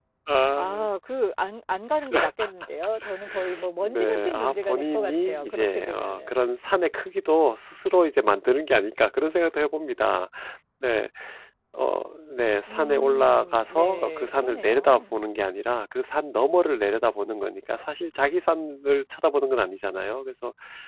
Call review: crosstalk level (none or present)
present